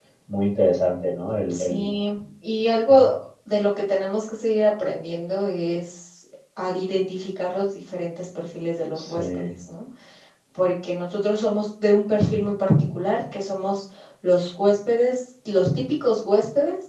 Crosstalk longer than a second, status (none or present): none